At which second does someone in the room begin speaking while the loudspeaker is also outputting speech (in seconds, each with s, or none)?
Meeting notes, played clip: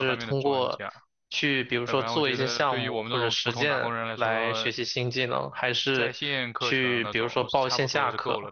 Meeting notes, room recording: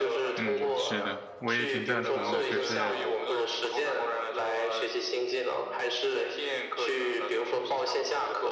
0.4 s